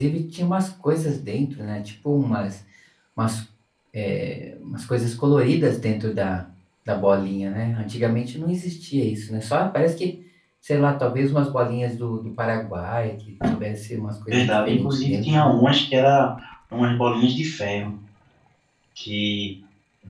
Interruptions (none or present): present